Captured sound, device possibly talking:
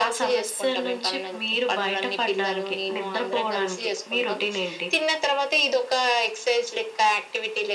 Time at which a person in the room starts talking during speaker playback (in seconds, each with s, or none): none